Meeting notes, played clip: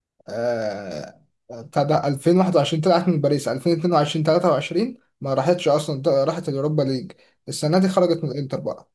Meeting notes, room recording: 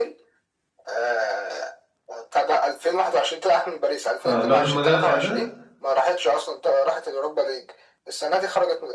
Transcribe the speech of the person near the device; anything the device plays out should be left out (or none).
آه، الواد المدافع ده